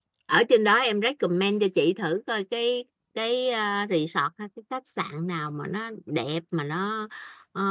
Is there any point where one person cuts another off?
No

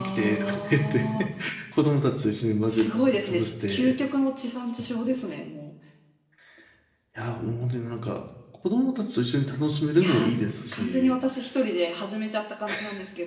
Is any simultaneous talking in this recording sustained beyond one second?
Yes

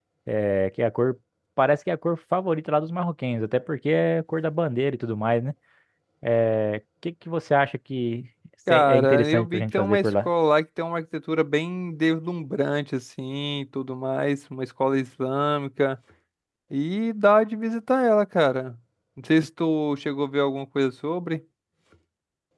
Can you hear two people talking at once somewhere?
Yes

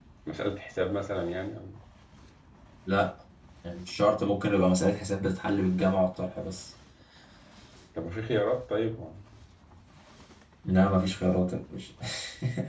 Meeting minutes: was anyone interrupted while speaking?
No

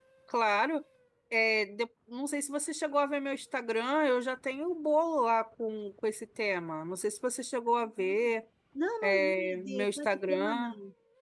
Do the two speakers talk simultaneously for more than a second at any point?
Yes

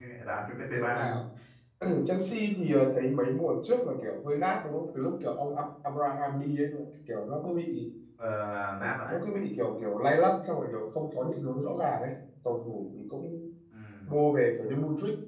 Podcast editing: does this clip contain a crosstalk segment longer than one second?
No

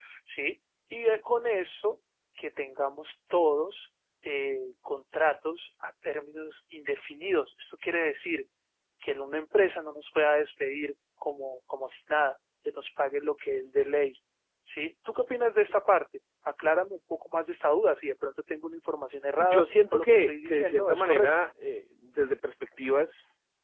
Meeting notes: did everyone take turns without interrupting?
No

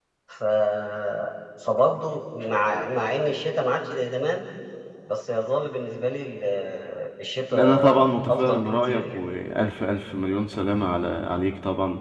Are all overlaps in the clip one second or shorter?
No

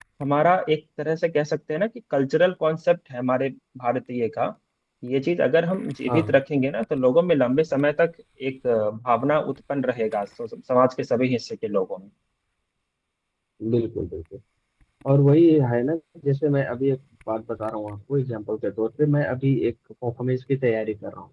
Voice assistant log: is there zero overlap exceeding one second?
Yes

